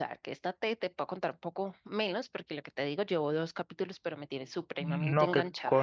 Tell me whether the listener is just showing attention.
No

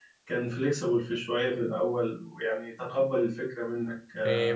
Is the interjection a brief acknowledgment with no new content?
No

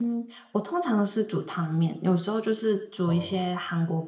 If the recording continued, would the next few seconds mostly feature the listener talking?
No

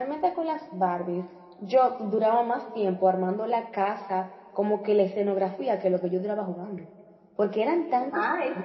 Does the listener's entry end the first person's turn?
No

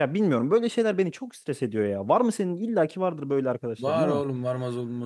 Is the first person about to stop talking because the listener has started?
Yes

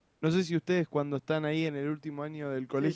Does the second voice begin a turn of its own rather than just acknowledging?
Yes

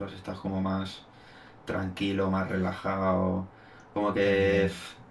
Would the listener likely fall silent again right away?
Yes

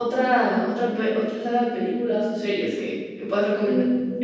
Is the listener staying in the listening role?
No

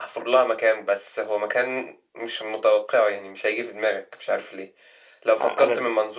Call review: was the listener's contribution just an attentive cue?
Yes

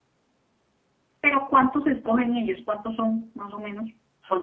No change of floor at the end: No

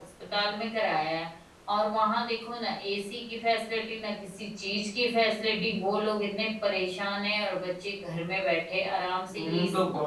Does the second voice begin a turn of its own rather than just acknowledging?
Yes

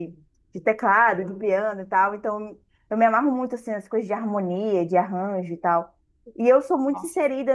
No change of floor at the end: Yes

